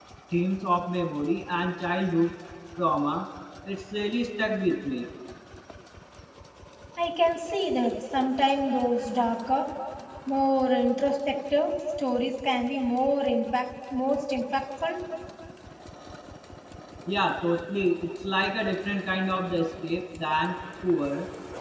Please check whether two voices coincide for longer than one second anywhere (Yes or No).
No